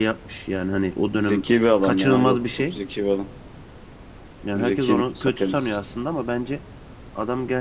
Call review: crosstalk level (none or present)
present